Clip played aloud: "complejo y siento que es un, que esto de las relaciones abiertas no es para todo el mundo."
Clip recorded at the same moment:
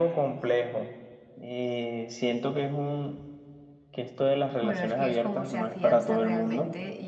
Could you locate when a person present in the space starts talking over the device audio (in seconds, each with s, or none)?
4.6 s